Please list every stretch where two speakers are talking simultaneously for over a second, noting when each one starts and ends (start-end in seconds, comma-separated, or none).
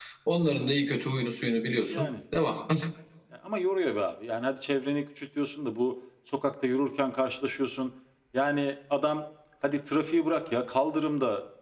none